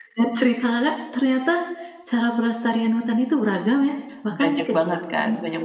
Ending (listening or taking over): taking over